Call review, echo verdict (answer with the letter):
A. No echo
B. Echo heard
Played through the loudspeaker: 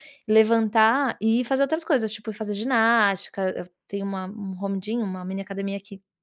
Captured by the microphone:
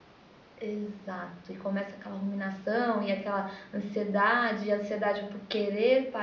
A